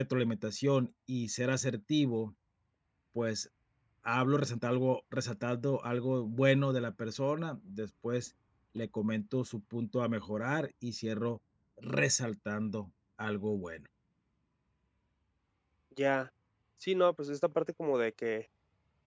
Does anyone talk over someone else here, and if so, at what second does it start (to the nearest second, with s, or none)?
none